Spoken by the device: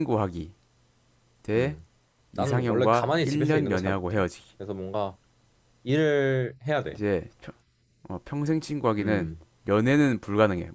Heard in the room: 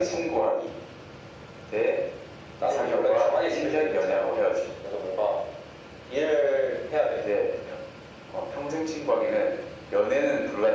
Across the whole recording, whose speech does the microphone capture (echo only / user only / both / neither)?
echo only